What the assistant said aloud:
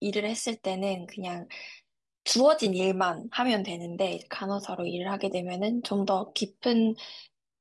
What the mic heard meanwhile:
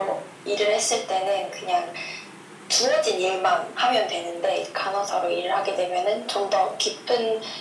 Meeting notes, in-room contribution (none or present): none